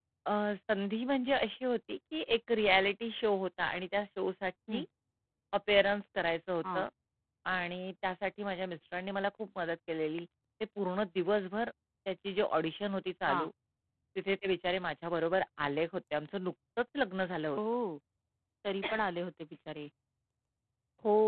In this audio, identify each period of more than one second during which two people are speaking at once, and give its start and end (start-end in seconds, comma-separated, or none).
none